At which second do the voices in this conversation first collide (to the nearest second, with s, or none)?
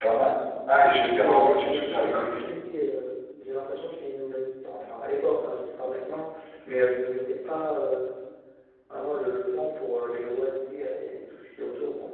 1 s